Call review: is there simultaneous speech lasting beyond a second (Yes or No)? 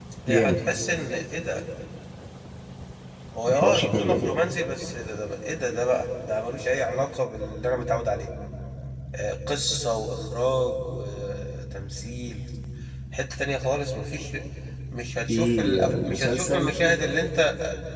Yes